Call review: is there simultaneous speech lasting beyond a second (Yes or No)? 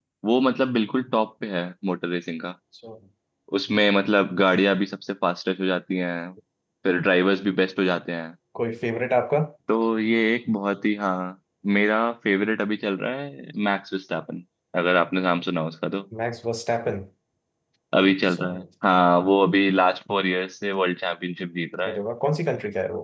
No